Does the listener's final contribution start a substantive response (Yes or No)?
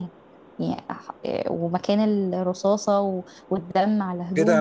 Yes